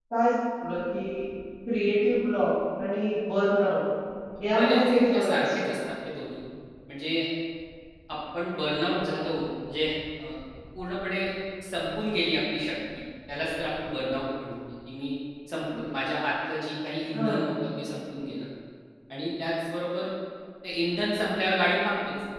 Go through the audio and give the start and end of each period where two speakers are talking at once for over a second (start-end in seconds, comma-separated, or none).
4.5-5.8